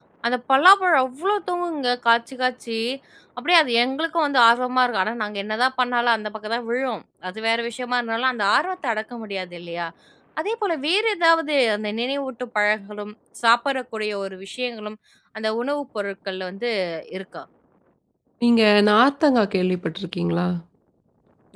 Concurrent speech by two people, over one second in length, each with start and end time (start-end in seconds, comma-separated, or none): none